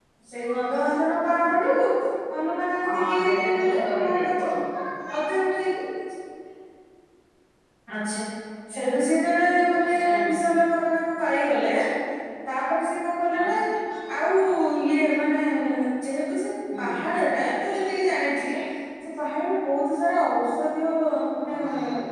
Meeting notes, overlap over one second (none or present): present